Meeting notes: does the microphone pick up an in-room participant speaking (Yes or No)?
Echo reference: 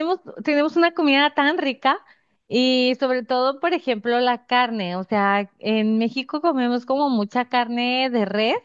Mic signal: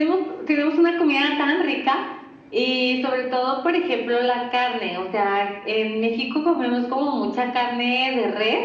No